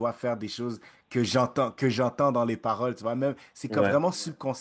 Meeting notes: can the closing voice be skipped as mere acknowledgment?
Yes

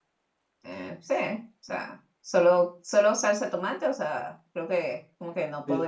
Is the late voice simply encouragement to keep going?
Yes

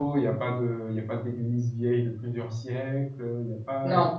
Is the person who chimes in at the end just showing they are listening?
Yes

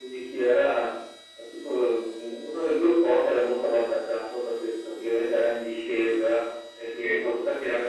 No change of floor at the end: Yes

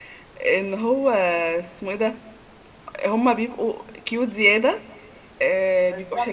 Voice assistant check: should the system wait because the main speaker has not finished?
Yes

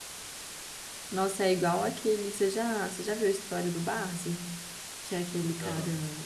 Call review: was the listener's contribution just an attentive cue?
Yes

